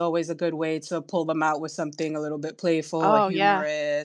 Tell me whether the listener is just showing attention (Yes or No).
Yes